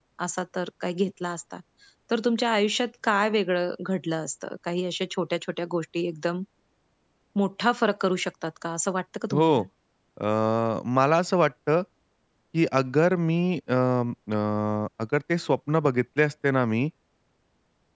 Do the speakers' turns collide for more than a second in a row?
No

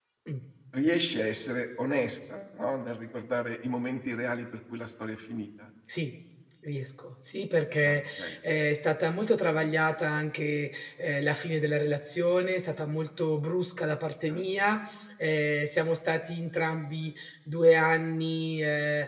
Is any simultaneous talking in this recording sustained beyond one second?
No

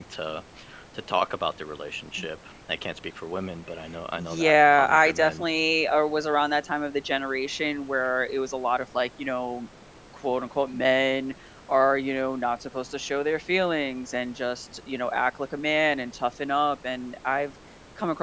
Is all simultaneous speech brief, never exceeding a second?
No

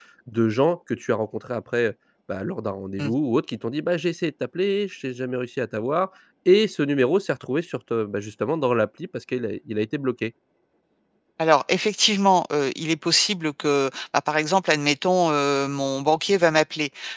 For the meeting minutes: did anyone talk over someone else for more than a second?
No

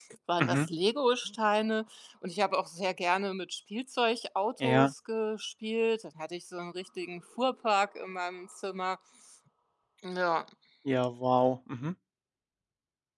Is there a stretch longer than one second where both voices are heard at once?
No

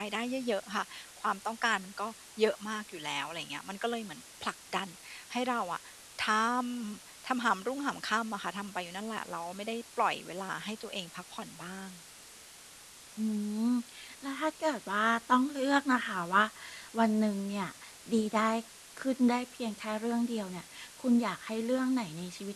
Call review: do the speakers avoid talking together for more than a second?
Yes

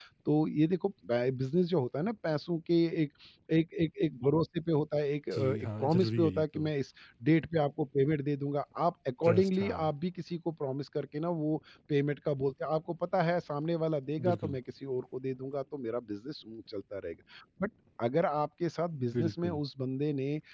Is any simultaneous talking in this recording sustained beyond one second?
Yes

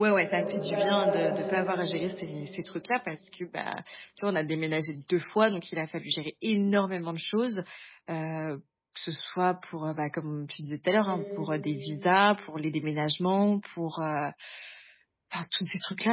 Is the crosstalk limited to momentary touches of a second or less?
No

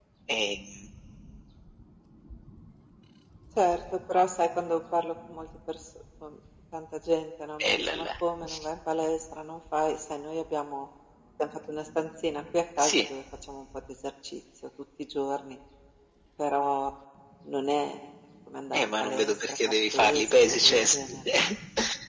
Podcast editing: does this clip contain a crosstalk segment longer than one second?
Yes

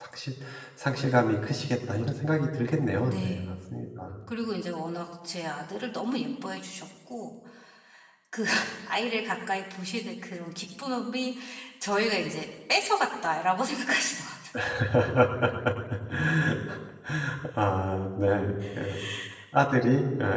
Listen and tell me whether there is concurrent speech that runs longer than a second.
No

